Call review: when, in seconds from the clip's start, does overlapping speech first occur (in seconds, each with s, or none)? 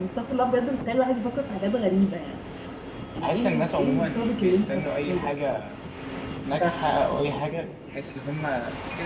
3.2 s